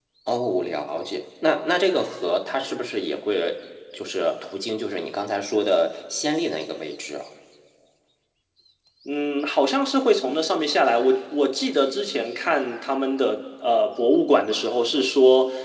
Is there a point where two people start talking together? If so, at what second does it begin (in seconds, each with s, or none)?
none